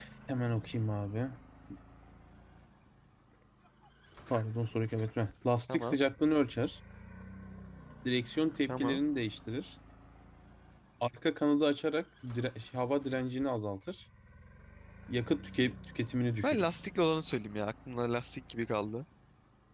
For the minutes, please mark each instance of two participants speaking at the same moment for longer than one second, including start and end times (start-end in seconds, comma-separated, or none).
none